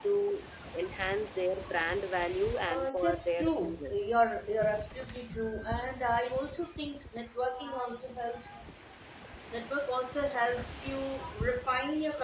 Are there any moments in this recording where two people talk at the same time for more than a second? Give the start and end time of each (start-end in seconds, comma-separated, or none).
2.7-4.0